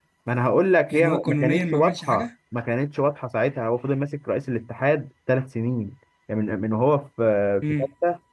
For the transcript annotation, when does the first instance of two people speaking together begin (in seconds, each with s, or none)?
0.9 s